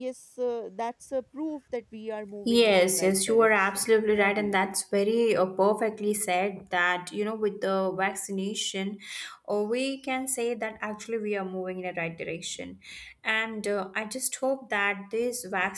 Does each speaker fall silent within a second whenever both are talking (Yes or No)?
No